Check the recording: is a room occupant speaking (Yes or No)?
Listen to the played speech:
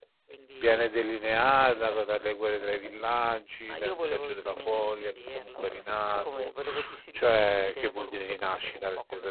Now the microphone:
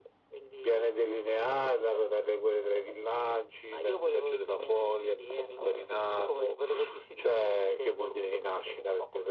No